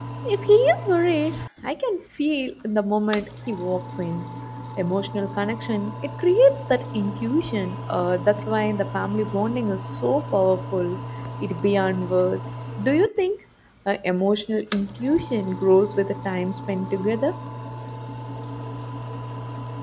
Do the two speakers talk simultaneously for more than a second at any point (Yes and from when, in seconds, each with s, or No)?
No